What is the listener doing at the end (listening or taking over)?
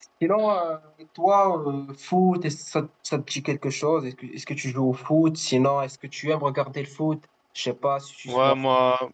taking over